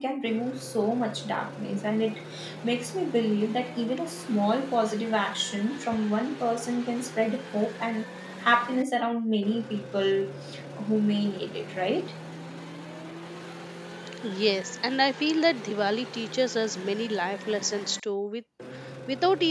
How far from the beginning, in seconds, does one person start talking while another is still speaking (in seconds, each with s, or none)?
none